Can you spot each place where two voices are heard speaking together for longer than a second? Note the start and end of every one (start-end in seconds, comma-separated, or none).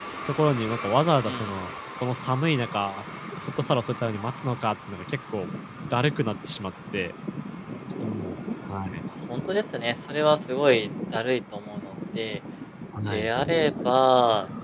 none